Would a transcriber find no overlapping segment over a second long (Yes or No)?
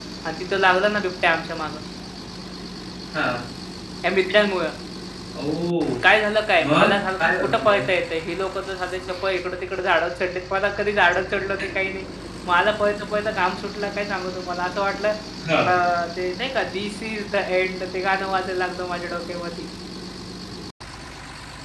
No